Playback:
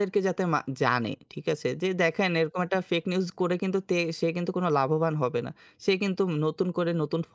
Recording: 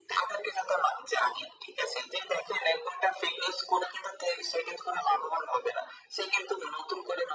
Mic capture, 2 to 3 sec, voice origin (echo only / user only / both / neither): echo only